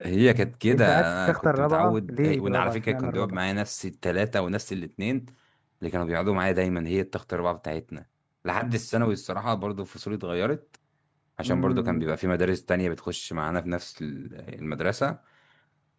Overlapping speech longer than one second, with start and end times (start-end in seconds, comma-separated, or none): 0.7-3.4